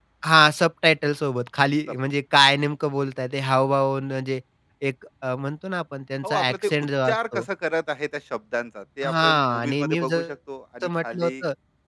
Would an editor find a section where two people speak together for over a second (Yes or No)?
Yes